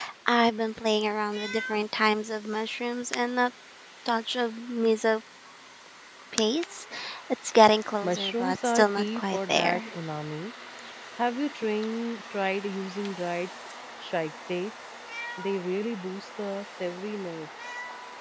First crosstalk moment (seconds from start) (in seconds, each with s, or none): 8.0 s